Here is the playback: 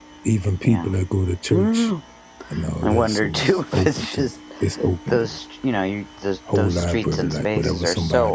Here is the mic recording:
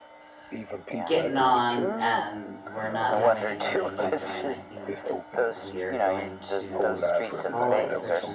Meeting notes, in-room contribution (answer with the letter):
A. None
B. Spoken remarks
B